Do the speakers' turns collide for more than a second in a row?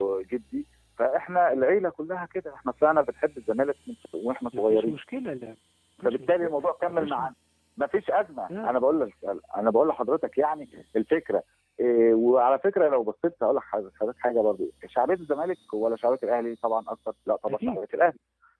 Yes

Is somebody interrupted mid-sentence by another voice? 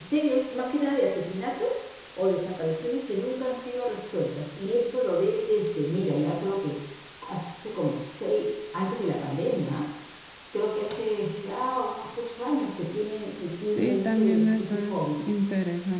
Yes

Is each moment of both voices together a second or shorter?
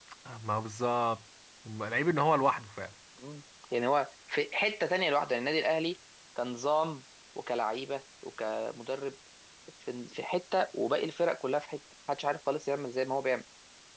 Yes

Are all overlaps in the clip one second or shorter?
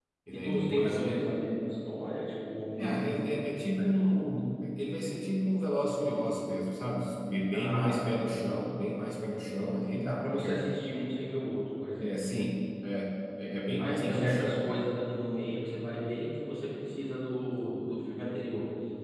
No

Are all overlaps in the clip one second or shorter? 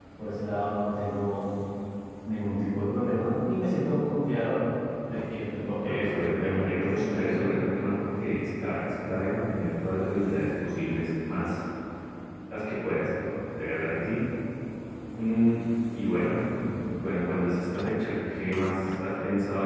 No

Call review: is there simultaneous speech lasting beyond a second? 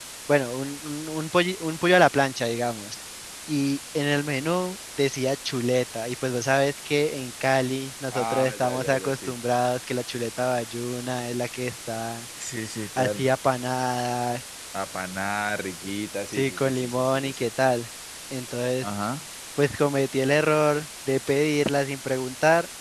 Yes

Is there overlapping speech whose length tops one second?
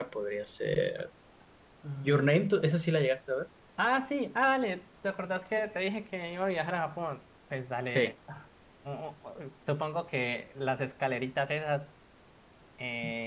No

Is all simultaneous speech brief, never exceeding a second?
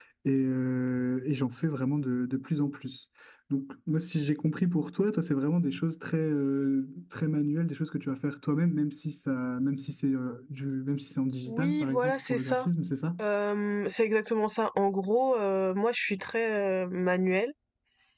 No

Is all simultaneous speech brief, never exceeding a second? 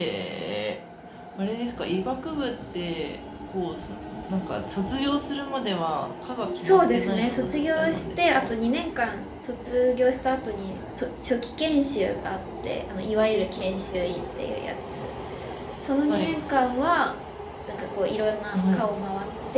No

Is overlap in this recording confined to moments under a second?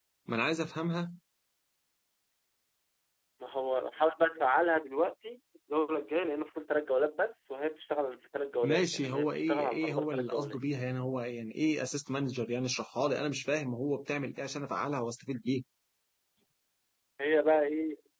No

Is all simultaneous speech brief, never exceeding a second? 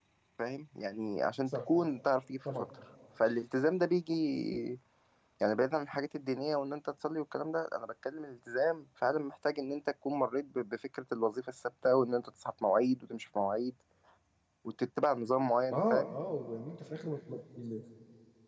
Yes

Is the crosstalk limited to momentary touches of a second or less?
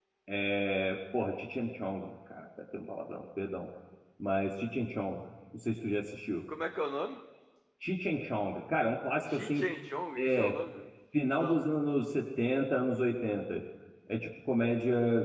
Yes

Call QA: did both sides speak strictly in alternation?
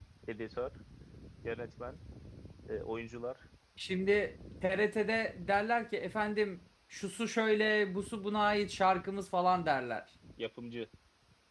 Yes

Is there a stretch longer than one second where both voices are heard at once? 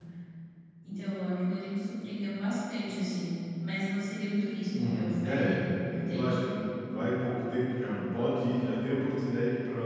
Yes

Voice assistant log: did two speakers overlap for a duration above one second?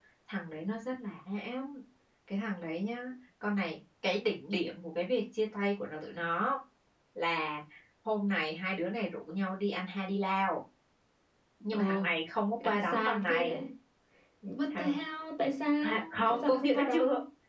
Yes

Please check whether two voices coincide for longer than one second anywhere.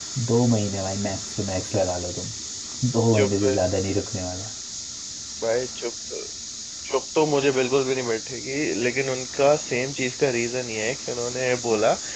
No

